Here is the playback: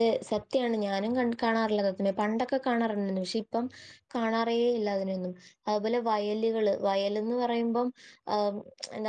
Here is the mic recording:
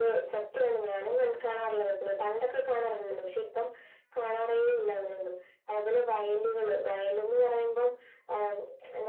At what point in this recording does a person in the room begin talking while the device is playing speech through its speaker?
none

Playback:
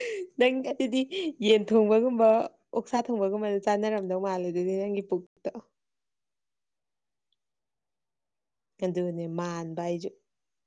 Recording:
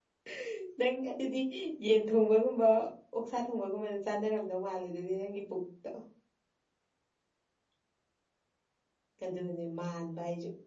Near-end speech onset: none

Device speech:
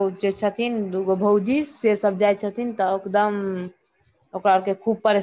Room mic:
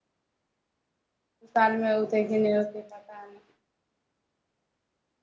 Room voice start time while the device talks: 1.6 s

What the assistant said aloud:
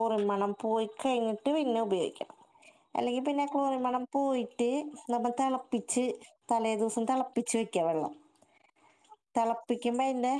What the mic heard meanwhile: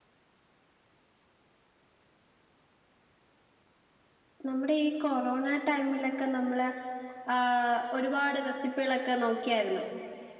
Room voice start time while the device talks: 4.5 s

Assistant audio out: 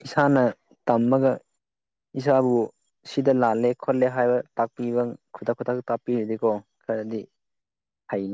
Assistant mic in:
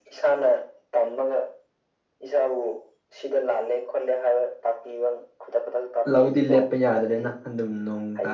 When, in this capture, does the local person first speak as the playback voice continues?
6.1 s

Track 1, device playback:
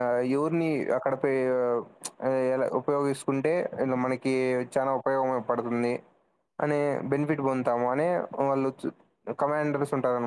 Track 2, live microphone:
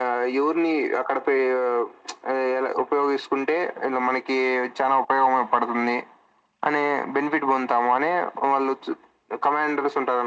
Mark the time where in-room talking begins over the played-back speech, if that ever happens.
none

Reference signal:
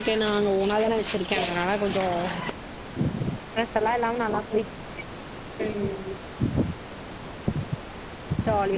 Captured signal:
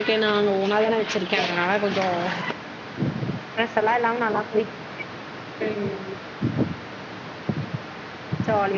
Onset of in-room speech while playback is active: none

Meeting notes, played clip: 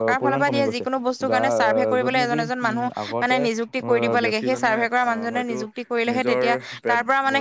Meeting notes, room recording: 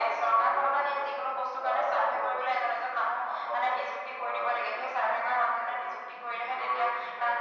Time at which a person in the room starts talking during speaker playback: none

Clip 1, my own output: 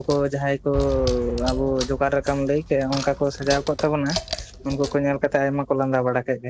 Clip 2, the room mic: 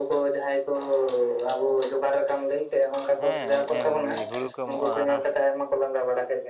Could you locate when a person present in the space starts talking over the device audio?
3.2 s

